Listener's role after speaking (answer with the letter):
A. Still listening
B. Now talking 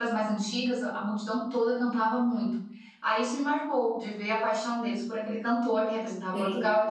A